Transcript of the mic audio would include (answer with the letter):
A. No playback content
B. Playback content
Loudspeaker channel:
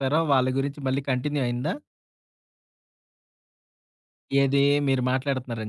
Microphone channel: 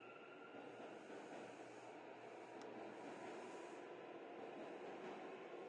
A